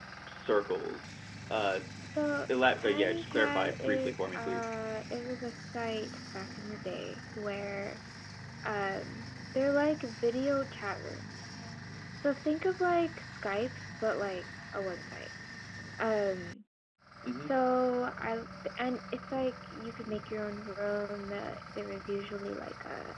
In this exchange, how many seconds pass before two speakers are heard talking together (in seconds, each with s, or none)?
2.8 s